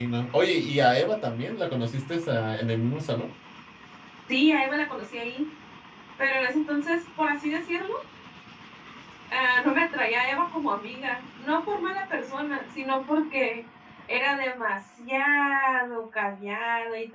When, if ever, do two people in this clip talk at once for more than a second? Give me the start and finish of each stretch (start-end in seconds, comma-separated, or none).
none